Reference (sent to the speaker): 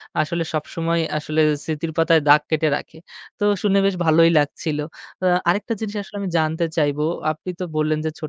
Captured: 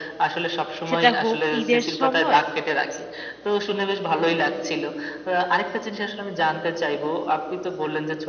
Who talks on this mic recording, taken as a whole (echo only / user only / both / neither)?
both